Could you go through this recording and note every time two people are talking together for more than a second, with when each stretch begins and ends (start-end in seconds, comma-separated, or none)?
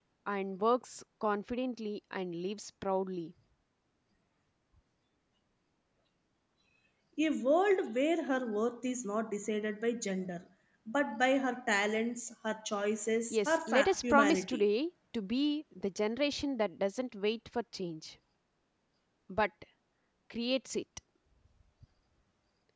13.3-14.6